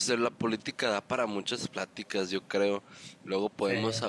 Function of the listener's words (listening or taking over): listening